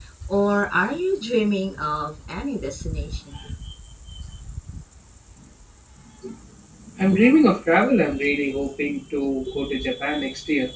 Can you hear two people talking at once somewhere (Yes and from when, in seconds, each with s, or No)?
No